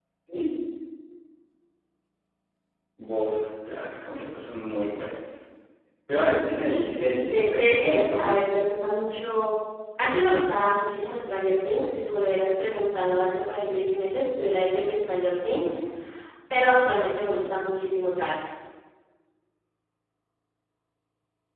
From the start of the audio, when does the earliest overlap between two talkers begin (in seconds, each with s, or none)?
7.2 s